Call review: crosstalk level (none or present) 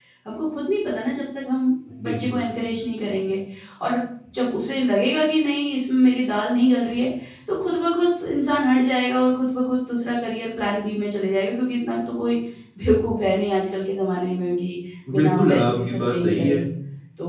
present